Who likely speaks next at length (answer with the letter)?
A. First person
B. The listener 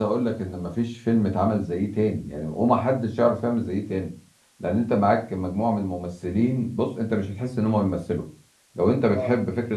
A